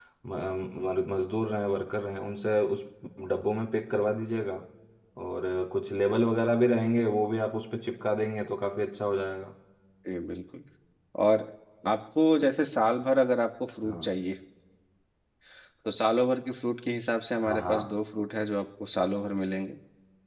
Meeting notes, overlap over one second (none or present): none